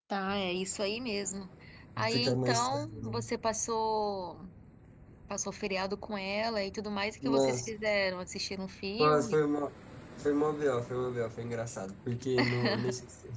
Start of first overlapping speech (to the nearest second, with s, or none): 2 s